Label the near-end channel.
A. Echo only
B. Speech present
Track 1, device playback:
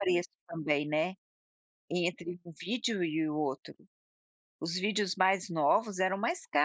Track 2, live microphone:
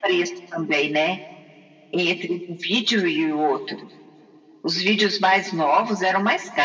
A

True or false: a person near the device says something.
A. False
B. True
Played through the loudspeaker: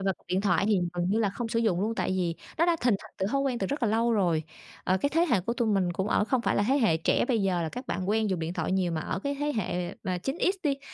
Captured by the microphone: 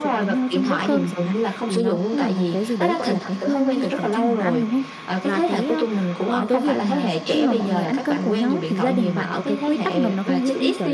B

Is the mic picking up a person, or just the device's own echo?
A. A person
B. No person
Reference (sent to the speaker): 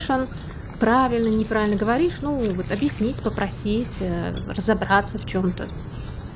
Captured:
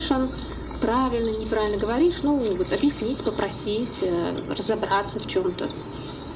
B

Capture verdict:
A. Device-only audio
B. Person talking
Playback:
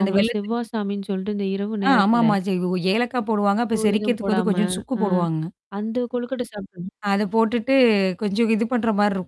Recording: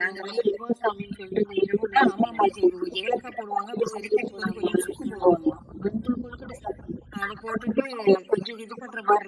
A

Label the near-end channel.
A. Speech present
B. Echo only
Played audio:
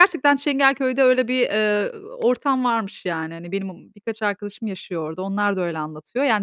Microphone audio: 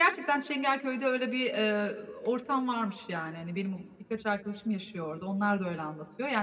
B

